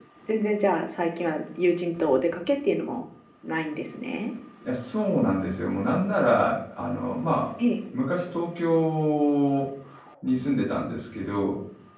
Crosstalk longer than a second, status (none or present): none